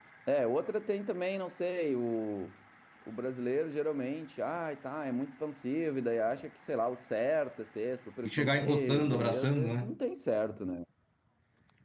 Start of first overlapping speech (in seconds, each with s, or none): 8.2 s